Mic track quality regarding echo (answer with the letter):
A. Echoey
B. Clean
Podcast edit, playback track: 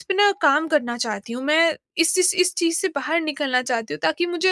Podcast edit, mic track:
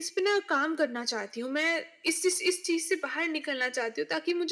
A